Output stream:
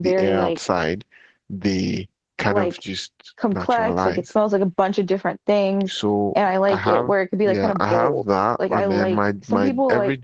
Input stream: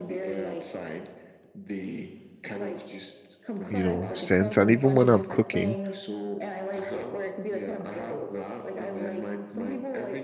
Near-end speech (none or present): present